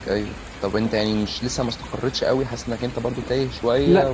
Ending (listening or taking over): taking over